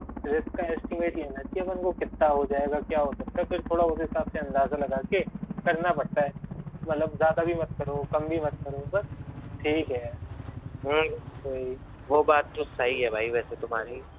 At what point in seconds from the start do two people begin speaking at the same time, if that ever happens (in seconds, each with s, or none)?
none